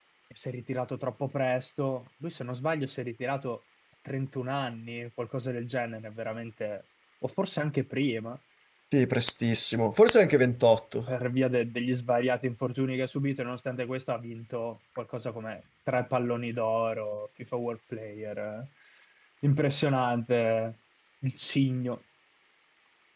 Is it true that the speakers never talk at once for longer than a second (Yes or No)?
Yes